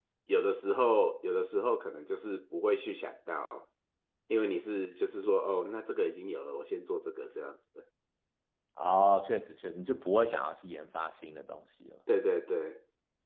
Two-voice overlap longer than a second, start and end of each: none

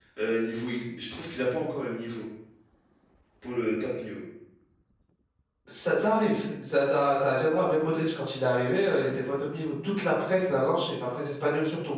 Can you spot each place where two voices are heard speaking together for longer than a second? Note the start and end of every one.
none

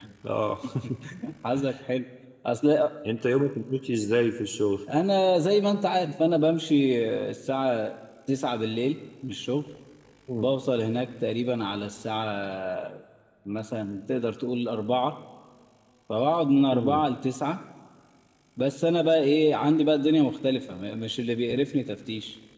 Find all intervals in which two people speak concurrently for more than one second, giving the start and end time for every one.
none

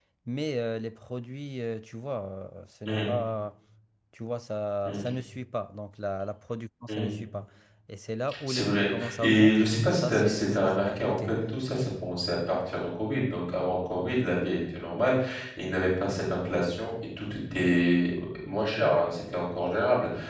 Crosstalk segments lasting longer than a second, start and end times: 8.5-11.3

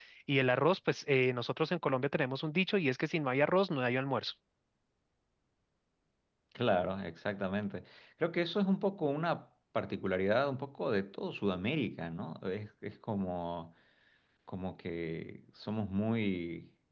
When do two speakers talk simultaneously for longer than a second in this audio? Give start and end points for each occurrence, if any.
none

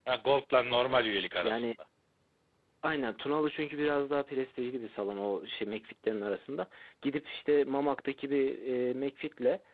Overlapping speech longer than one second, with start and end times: none

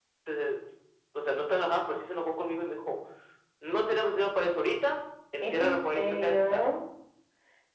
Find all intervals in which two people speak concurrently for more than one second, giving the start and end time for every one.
5.4-6.7

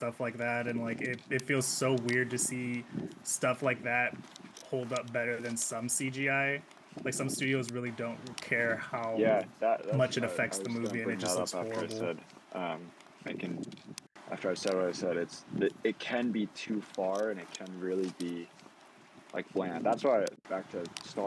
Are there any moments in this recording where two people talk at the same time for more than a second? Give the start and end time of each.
9.9-12.1

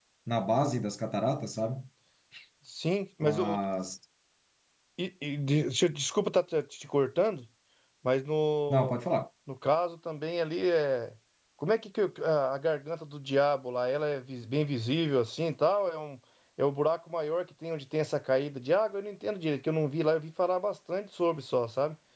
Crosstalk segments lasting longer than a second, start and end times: none

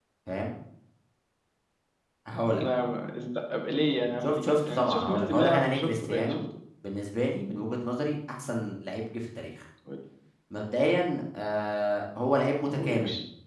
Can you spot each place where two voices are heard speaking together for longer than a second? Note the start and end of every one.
4.2-6.4

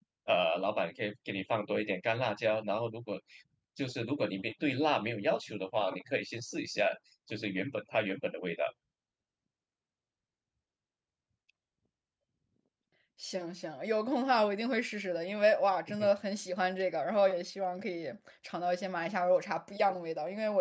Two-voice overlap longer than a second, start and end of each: none

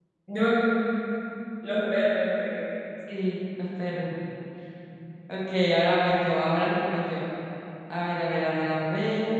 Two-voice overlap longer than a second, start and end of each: none

